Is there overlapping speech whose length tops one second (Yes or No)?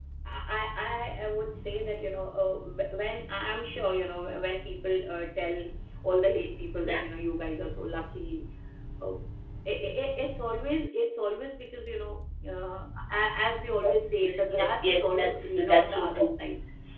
Yes